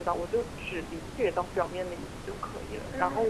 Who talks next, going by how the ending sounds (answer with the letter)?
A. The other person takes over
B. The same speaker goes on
A